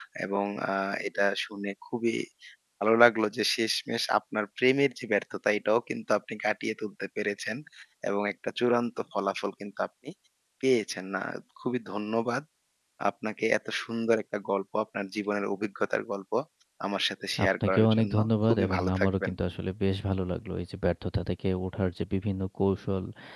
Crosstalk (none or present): present